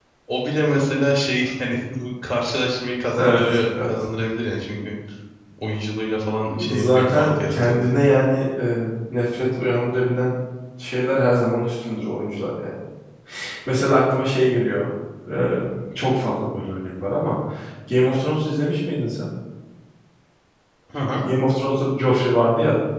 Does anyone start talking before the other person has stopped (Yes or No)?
Yes